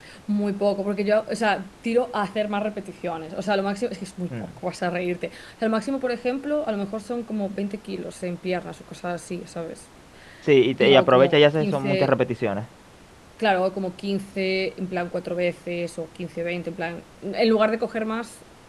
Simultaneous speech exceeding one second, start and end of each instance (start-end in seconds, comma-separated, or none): 10.8-12.1